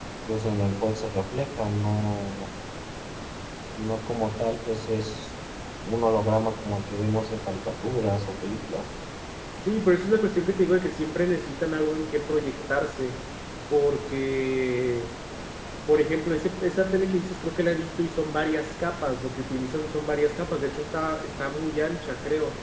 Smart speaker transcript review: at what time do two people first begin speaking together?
none

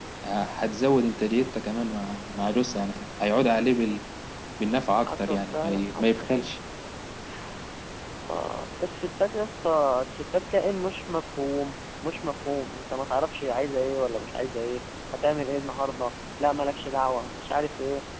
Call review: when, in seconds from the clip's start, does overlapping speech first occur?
5.0 s

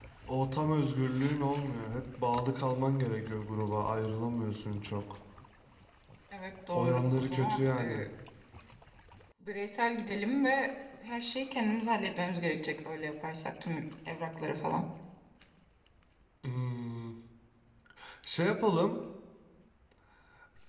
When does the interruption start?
6.7 s

